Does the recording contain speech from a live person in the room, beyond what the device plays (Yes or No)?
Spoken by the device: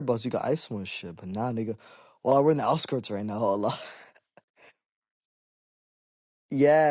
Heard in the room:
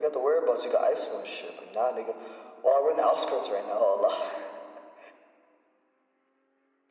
No